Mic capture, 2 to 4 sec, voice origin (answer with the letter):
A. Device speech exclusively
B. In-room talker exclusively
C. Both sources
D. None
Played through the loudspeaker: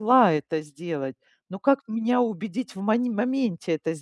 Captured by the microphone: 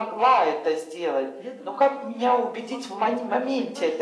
C